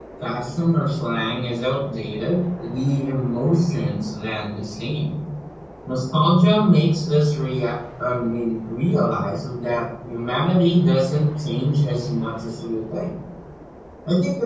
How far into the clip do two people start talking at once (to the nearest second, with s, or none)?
none